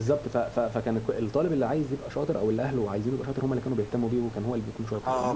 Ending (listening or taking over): taking over